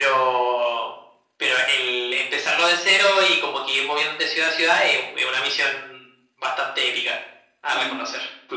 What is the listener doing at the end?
taking over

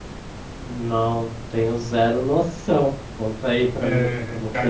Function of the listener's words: taking over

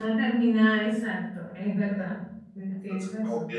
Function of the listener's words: taking over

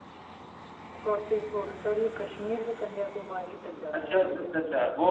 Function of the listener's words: taking over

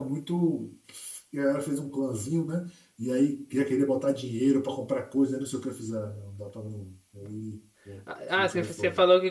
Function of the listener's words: taking over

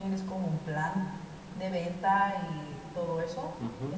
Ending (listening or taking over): taking over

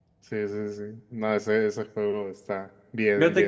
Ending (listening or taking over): taking over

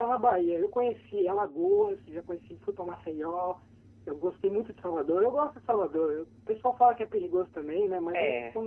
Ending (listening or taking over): listening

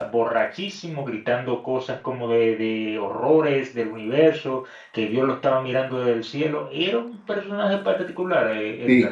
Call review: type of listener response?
taking over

